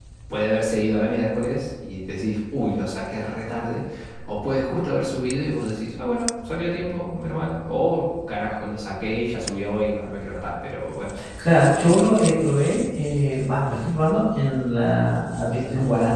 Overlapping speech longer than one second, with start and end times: none

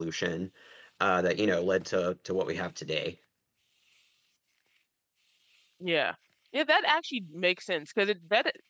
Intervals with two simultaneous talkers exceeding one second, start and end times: none

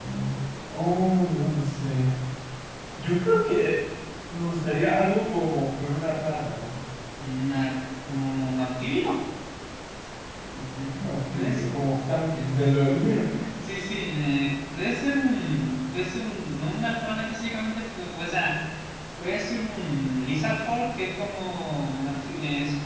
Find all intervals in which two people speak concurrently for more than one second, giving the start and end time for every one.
none

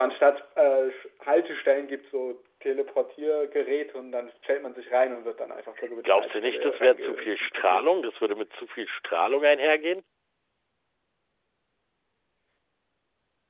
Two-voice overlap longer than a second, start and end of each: 6.0-7.8

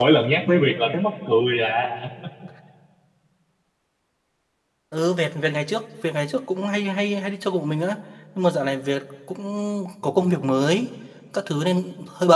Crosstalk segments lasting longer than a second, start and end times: none

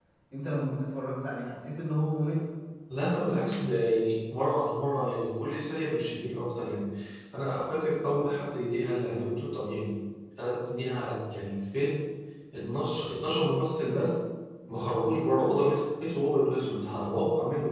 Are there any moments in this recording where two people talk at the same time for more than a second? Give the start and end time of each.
none

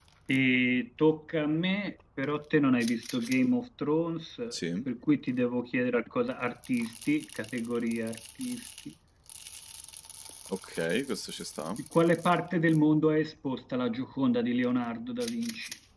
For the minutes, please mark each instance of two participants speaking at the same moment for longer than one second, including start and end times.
none

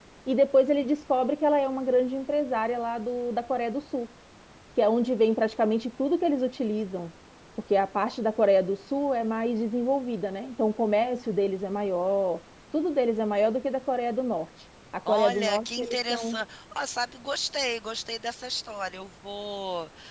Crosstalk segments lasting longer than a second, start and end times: 15.1-16.4

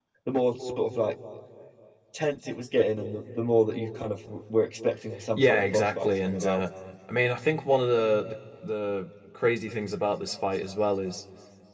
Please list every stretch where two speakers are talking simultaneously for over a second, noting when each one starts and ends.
5.4-6.6

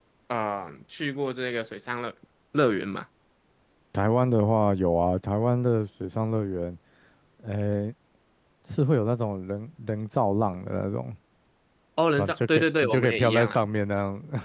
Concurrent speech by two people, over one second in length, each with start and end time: 12.2-13.6

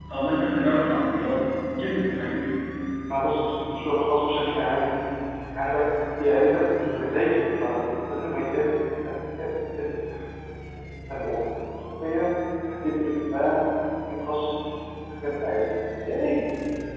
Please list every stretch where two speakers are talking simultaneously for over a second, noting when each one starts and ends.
none

